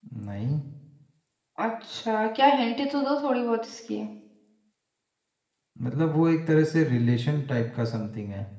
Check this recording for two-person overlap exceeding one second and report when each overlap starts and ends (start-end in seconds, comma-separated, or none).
none